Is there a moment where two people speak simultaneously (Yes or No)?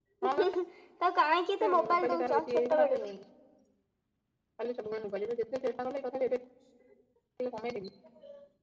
Yes